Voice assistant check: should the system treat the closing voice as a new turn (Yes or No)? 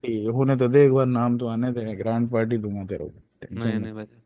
Yes